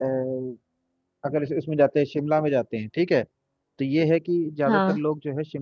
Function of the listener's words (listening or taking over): listening